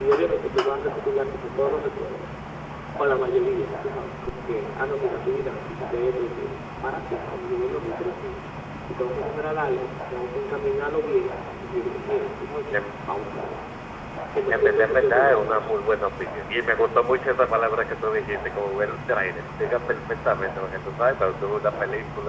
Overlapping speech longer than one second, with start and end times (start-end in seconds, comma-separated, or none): 14.5-15.8